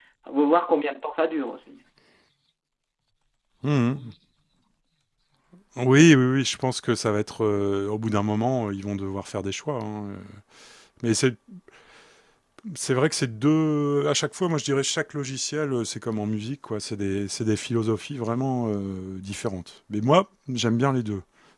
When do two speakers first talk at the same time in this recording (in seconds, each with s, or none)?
none